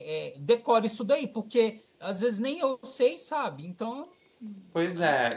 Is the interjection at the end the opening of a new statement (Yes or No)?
Yes